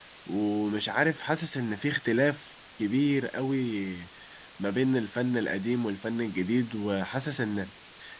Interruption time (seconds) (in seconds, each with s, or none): none